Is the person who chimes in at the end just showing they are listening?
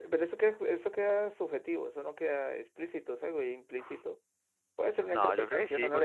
No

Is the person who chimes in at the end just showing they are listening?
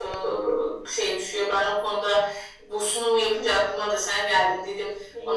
No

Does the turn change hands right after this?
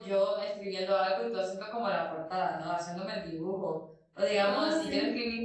No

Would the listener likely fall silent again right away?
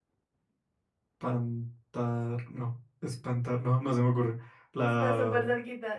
No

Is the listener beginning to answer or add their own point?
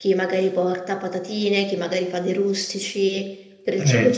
Yes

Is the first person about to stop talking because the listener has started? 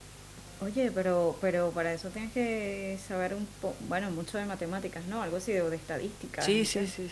Yes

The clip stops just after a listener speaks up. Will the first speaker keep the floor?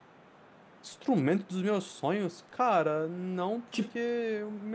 Yes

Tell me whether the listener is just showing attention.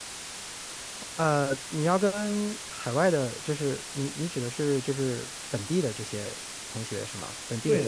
No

